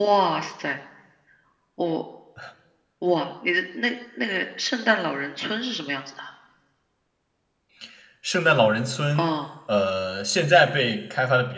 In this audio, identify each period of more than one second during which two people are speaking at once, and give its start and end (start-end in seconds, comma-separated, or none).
none